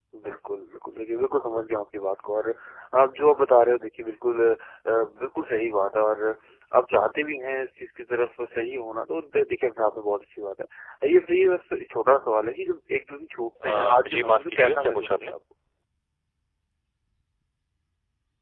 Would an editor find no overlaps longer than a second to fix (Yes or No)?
No